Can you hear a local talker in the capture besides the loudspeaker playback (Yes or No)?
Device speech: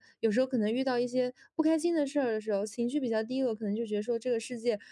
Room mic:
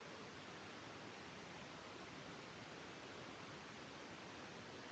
No